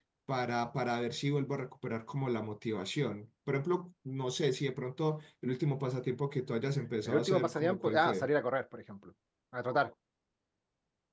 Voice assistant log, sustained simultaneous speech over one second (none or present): present